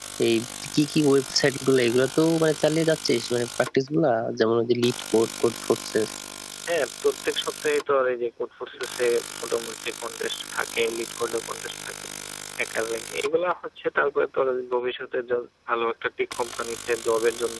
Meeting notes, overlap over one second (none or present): none